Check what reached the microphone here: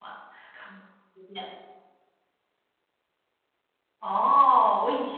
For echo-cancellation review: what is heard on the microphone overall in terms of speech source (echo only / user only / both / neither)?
user only